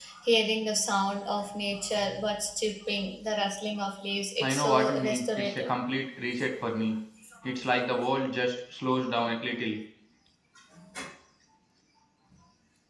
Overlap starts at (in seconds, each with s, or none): 4.4 s